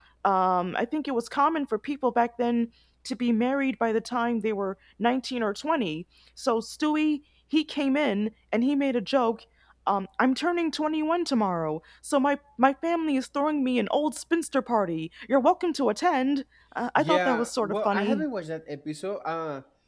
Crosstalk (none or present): present